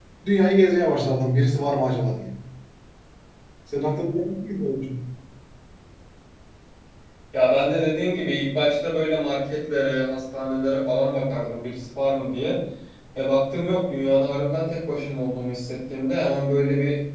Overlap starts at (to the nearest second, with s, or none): none